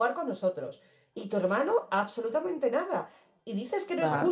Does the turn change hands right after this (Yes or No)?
No